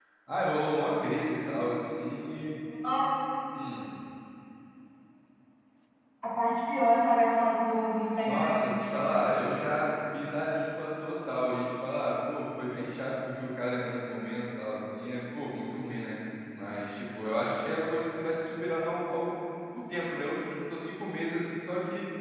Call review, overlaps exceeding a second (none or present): none